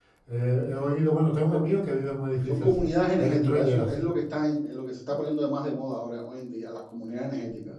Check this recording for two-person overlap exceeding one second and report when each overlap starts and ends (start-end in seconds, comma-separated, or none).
2.5-4.0